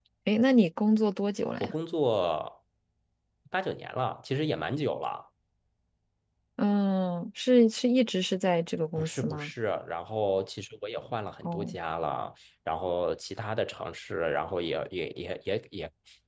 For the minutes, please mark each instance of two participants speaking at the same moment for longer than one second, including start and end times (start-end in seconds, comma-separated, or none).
none